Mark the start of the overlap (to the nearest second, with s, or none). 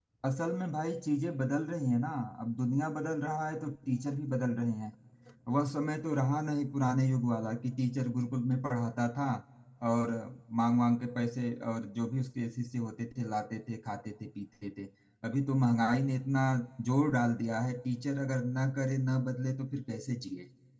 none